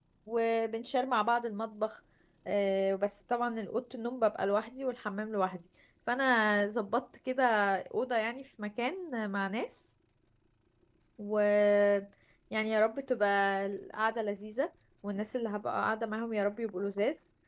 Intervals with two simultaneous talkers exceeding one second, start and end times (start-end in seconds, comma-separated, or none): none